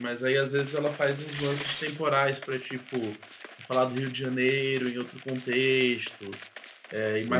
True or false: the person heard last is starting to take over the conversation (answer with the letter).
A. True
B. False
A